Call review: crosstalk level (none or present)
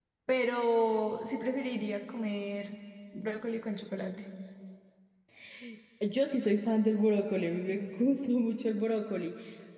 none